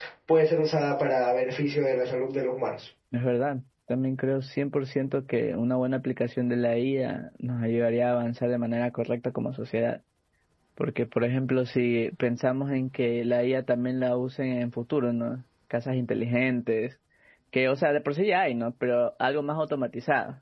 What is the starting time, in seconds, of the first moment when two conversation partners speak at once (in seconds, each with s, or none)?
none